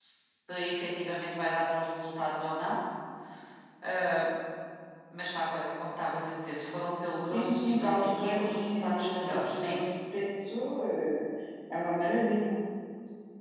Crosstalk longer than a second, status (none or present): present